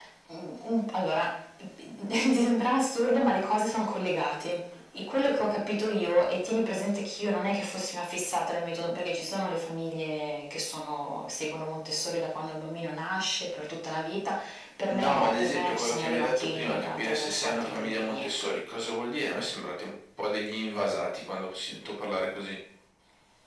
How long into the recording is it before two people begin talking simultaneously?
14.9 s

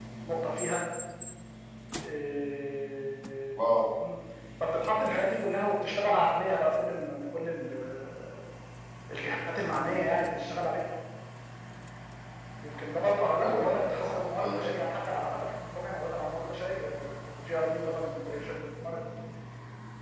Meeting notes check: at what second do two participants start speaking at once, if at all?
13.4 s

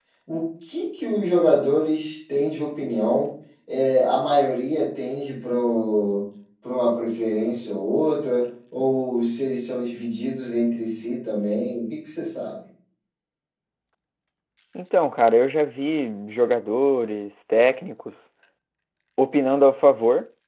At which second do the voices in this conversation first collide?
none

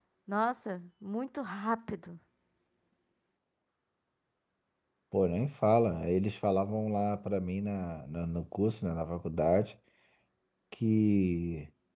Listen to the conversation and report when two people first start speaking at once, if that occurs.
none

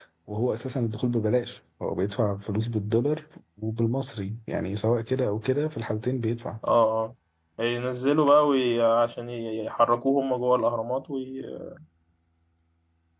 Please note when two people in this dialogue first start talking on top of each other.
none

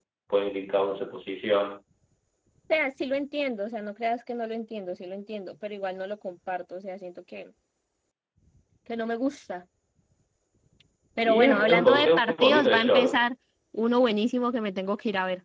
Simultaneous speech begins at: 11.2 s

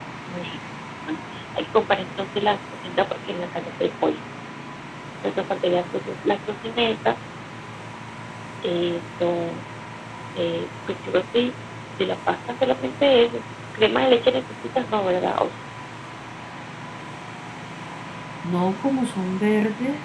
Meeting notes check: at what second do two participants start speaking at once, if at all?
none

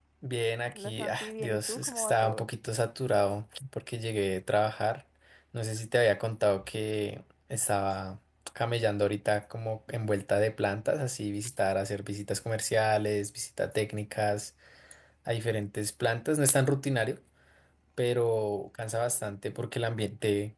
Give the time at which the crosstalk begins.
0.8 s

